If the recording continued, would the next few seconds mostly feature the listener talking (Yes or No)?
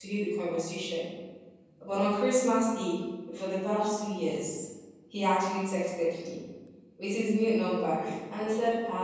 No